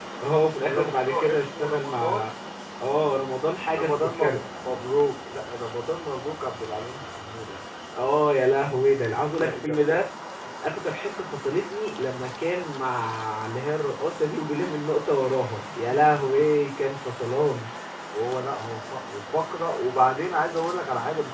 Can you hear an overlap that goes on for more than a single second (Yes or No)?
Yes